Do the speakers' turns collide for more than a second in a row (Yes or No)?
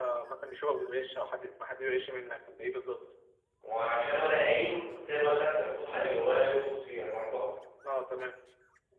No